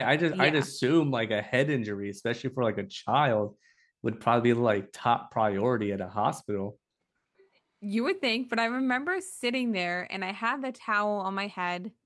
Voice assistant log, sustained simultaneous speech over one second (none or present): none